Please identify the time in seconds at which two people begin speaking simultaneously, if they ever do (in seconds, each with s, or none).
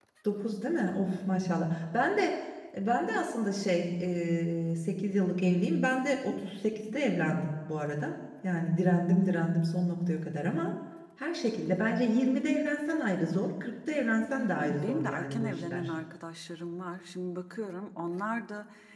14.6 s